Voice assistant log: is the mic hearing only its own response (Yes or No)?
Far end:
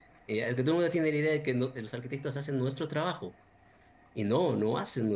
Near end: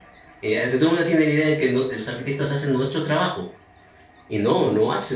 Yes